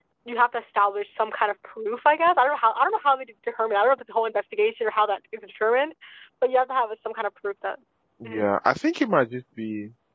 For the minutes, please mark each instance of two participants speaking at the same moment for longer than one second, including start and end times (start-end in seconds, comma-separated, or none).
none